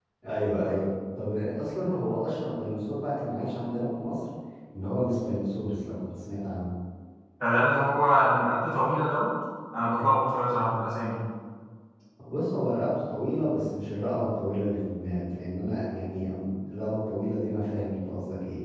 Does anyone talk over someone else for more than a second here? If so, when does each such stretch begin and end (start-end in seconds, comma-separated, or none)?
none